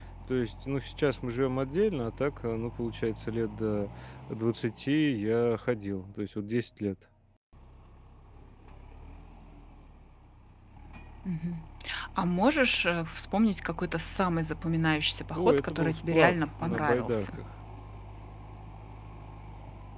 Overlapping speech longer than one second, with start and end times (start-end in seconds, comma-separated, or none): 15.3-17.4